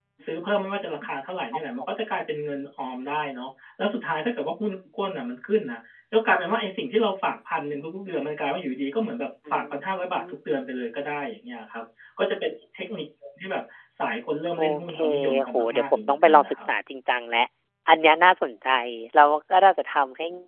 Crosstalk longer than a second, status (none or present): present